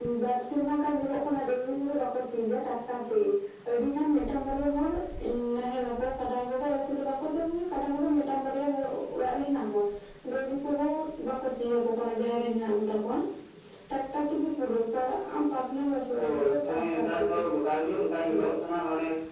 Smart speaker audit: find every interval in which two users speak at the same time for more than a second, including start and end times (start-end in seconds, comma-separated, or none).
16.2-17.4